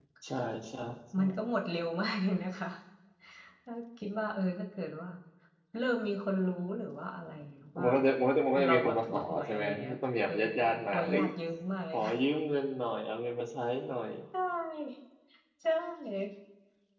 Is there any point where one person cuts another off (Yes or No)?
Yes